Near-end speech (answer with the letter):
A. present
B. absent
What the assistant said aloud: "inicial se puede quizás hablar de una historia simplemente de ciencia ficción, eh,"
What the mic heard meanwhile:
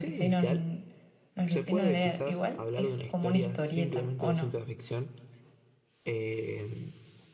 A